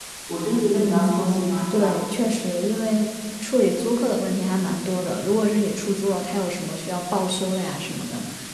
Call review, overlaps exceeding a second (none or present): none